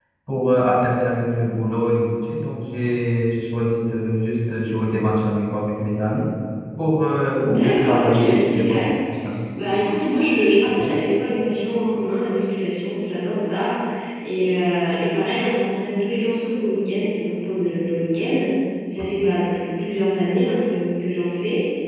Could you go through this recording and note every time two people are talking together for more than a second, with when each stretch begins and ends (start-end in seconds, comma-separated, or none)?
7.4-8.8